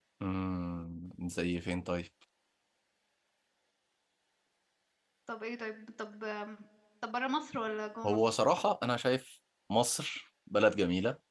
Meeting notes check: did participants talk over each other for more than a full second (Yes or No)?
No